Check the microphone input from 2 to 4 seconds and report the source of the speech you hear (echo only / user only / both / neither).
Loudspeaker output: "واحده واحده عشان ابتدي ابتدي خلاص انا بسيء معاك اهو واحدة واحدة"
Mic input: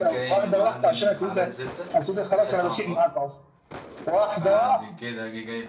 both